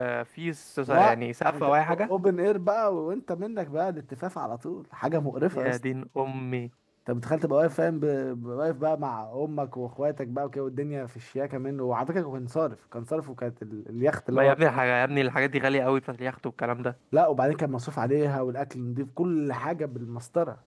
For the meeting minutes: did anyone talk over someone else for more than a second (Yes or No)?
Yes